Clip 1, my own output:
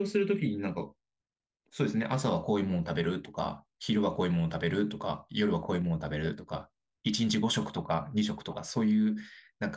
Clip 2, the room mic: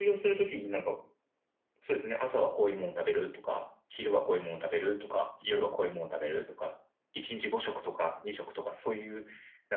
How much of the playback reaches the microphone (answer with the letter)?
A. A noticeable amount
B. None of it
A